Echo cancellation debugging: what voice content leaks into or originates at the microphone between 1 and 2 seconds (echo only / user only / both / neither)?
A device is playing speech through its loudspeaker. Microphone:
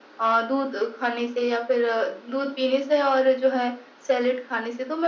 echo only